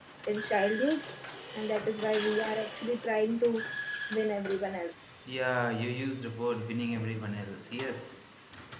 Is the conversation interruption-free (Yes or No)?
Yes